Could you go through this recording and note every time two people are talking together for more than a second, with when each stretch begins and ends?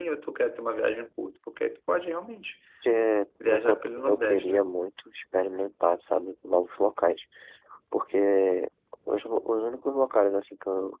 3.4-4.6

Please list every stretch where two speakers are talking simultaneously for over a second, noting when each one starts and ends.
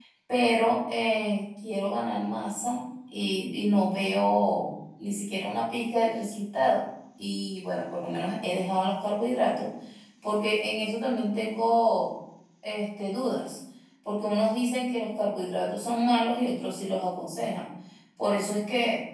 none

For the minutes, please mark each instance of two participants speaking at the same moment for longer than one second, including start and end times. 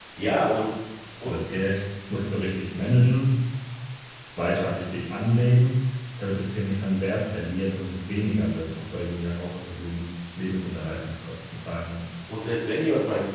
none

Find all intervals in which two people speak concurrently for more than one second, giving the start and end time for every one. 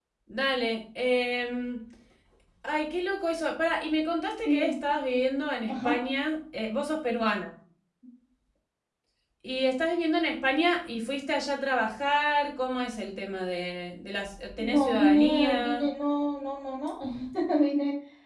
14.6-15.9

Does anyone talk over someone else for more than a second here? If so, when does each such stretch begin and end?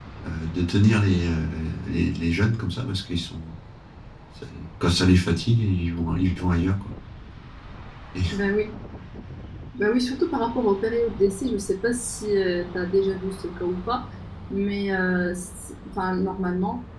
none

